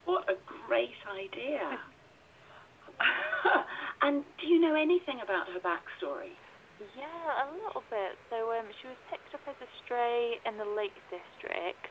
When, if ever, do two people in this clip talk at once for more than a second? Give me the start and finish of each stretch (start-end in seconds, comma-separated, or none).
none